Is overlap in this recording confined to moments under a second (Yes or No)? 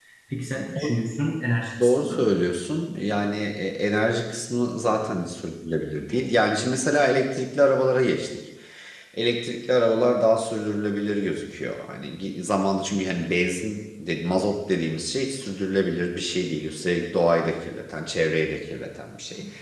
Yes